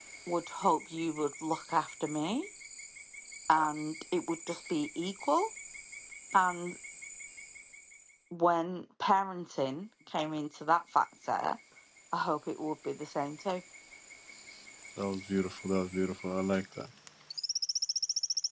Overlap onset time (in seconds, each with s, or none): none